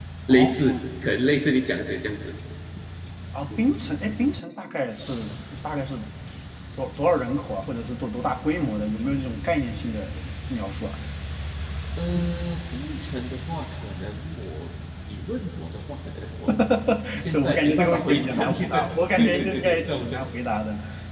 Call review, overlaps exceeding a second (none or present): present